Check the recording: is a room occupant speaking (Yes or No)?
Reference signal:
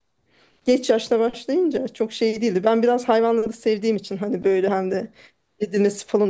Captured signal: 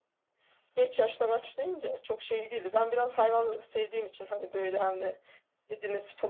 No